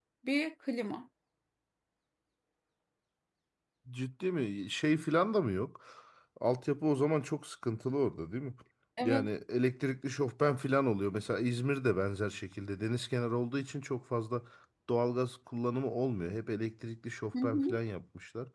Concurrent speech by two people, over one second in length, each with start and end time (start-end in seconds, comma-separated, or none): none